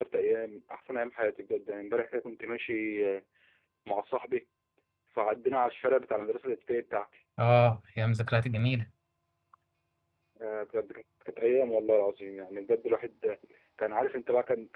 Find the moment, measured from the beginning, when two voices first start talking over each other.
none

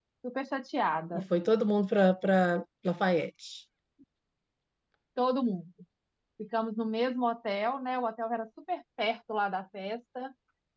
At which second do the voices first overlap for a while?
none

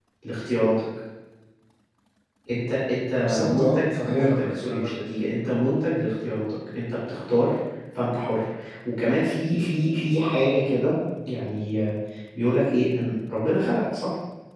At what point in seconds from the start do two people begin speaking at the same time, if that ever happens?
3.2 s

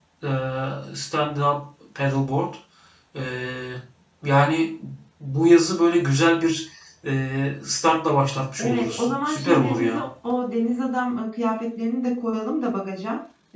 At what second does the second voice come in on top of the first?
8.6 s

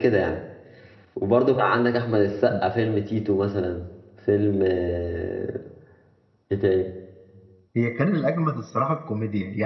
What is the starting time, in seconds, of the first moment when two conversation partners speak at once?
none

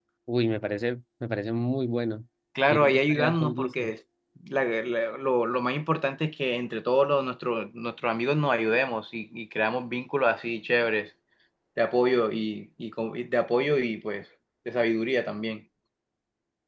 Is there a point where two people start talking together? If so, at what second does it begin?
2.7 s

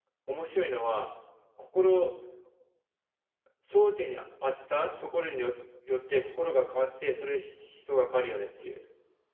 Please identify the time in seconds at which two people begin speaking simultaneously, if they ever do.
none

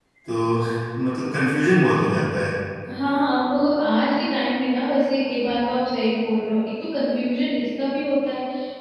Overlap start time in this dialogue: none

